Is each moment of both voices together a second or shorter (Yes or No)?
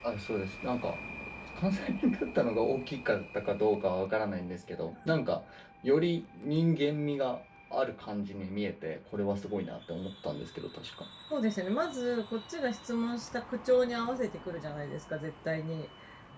Yes